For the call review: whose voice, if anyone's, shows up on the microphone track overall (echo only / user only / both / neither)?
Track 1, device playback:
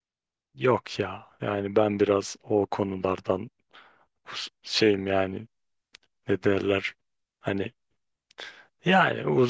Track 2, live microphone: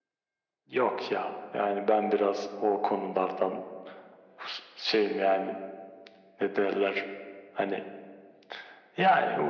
echo only